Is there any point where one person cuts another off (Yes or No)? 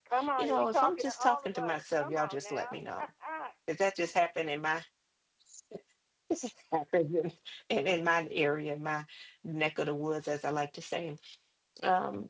Yes